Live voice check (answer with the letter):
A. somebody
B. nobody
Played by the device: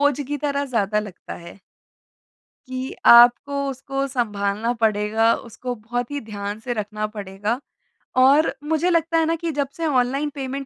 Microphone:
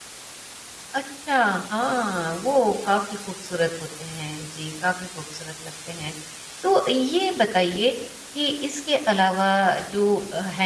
A